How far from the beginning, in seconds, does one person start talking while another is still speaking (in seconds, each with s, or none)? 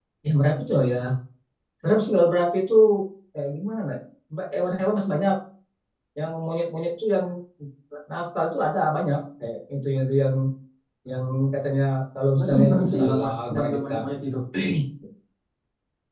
12.4 s